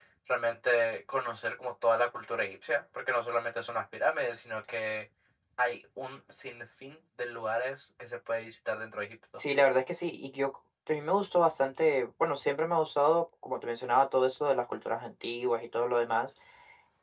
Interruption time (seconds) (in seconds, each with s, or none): none